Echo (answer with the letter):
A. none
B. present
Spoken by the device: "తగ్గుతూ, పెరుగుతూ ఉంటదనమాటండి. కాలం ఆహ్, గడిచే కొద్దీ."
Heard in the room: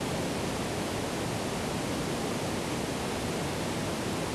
A